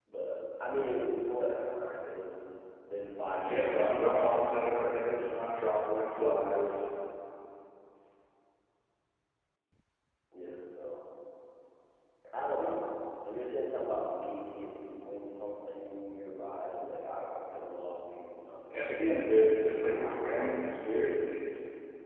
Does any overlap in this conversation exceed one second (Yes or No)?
Yes